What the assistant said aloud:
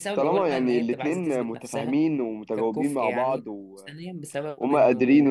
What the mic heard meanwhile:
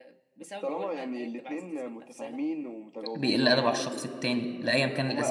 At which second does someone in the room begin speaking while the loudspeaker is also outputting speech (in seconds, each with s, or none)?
3.1 s